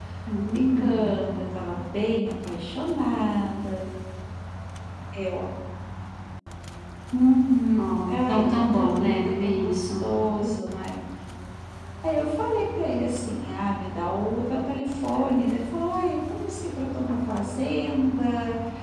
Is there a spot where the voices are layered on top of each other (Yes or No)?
Yes